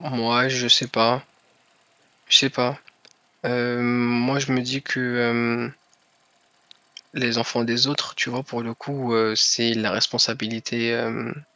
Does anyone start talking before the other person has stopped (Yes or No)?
No